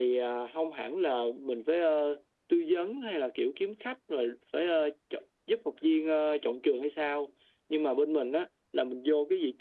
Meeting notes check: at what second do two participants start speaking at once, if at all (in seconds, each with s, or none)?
none